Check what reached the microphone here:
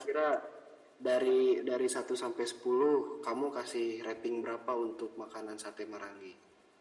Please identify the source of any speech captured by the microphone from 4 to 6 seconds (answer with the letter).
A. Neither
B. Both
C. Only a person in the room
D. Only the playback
D